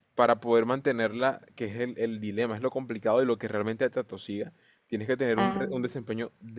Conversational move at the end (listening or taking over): listening